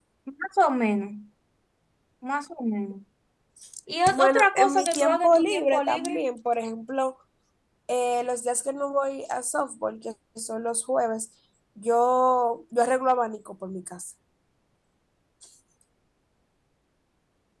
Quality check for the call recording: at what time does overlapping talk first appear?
4.2 s

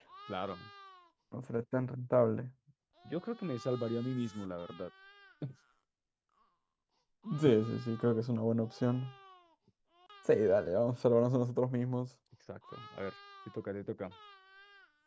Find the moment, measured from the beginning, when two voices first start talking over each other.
none

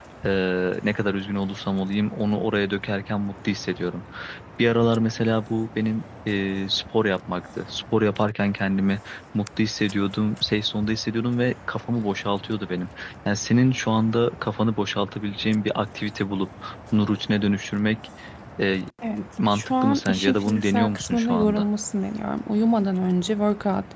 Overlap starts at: 19.5 s

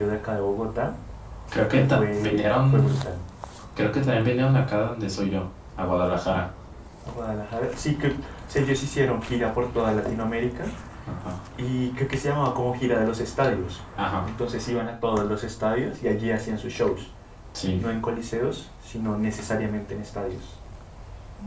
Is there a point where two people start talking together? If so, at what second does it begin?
1.7 s

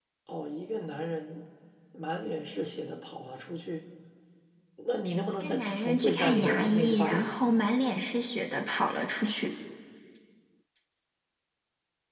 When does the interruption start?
5.3 s

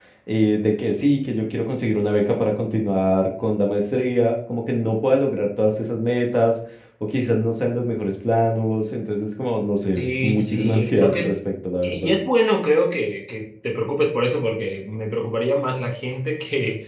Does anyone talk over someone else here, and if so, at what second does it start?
10.0 s

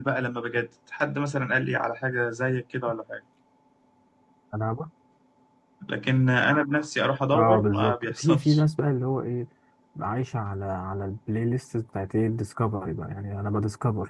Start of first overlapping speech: 7.3 s

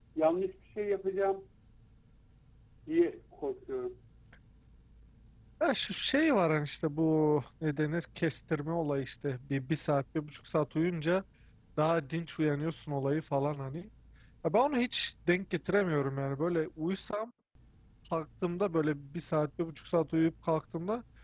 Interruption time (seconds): none

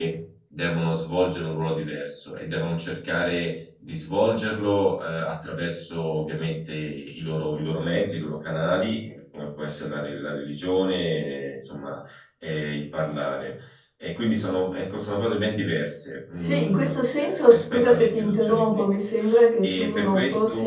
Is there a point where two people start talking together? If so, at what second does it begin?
16.4 s

